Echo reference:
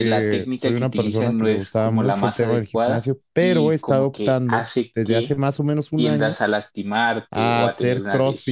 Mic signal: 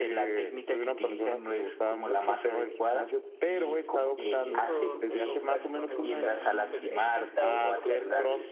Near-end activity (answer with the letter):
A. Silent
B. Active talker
B